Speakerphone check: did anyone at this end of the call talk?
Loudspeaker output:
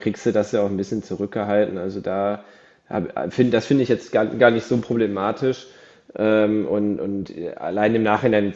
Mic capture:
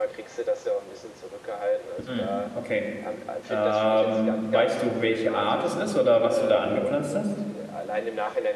Yes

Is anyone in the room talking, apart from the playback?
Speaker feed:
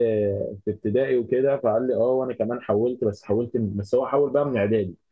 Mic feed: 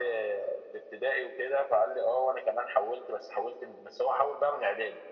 No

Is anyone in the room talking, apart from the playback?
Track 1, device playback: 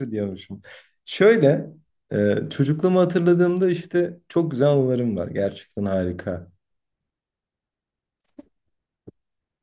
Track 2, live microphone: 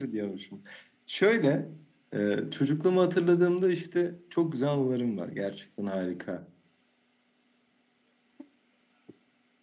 No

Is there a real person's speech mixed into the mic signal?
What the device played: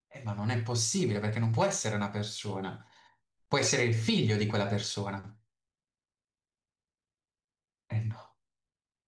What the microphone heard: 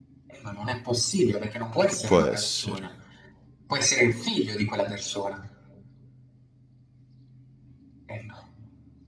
Yes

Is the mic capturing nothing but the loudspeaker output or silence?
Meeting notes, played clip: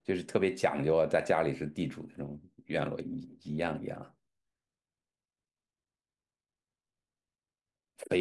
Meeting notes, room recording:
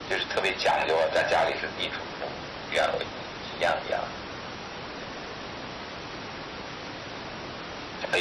Yes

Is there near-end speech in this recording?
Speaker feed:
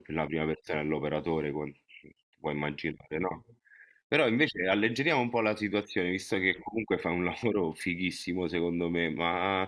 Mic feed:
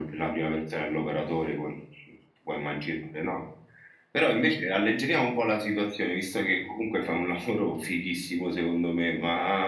No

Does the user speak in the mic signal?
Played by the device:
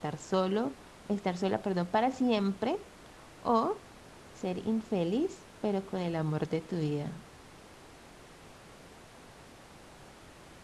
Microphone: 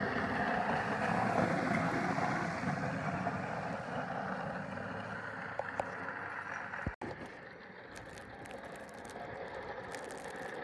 No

